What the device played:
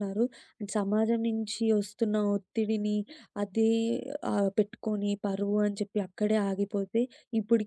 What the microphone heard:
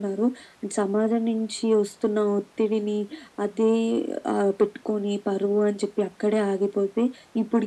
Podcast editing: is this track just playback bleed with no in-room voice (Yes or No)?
Yes